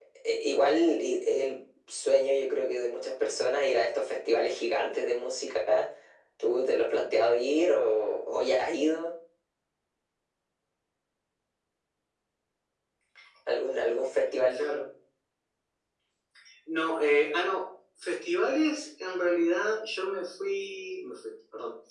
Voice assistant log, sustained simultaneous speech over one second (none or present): none